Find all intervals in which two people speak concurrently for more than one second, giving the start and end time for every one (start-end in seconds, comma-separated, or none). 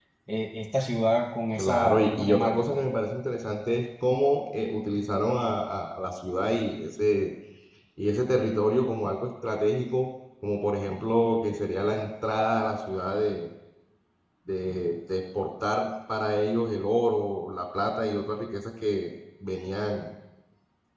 1.6-2.8